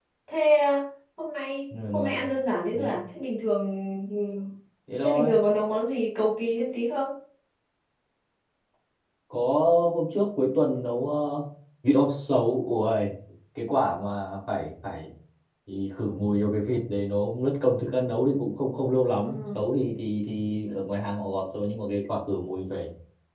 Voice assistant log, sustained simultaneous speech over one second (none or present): none